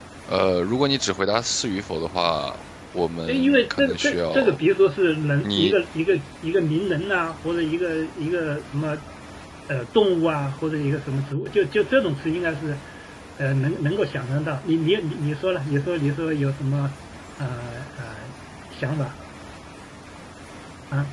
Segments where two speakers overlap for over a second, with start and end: 3.3-4.6

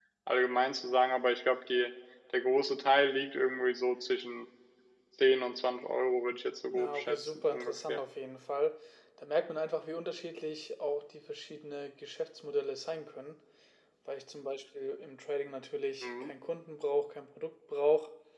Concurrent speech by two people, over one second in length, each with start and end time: 6.7-8.0

